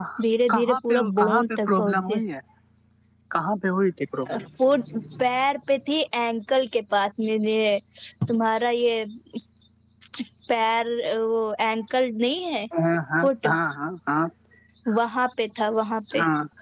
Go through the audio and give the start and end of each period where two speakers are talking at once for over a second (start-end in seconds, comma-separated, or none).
0.5-2.2